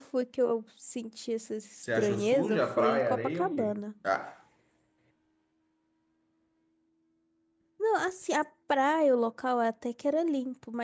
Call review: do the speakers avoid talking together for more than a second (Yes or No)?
No